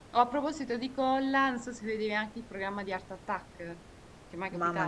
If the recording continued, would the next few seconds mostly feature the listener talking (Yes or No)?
Yes